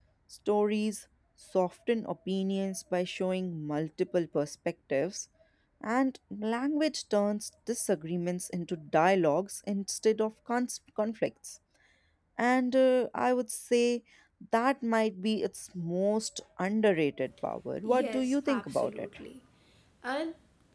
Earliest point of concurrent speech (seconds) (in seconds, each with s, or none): 17.8 s